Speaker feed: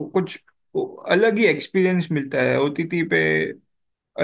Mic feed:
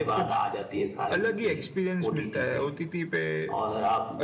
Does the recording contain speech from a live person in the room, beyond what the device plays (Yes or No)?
Yes